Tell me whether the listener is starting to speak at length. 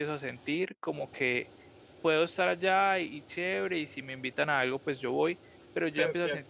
No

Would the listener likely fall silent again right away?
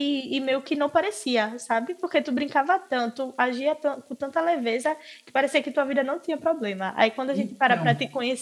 Yes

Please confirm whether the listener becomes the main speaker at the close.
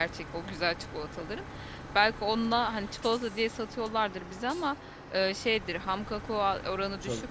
No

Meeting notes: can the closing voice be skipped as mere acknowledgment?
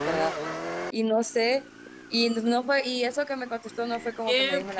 No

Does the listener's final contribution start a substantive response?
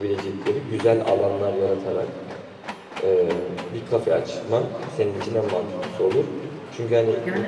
No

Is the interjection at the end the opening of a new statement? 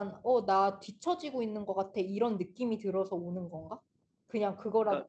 Yes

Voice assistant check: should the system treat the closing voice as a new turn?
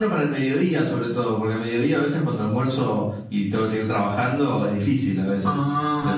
Yes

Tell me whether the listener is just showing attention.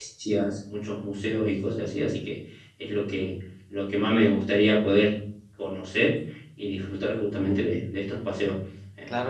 Yes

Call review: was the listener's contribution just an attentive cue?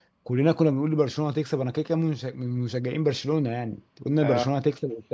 Yes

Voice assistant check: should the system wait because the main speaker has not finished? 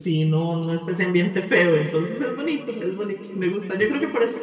Yes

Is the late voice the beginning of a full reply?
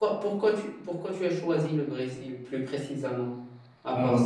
Yes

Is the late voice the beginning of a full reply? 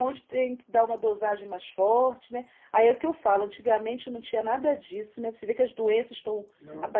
No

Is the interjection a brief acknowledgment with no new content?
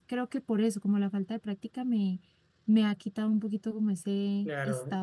No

